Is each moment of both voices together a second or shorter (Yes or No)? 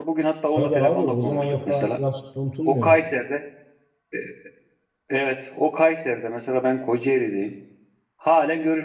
No